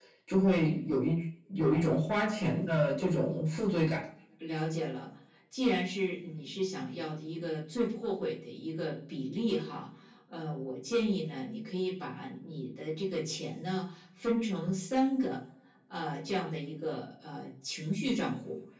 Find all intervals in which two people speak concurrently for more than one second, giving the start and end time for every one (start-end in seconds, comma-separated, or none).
none